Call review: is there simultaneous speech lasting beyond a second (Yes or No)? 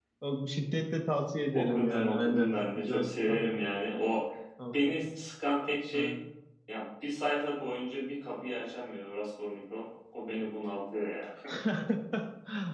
Yes